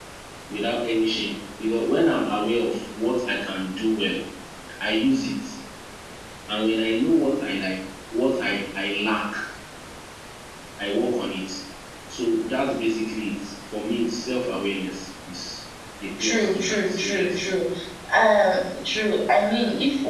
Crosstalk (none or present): present